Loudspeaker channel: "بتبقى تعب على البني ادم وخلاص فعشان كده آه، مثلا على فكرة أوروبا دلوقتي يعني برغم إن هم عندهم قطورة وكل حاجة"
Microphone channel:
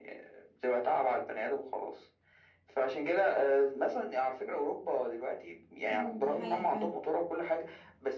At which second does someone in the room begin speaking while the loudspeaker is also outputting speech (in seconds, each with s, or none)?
5.9 s